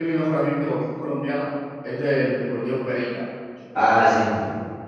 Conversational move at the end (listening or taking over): taking over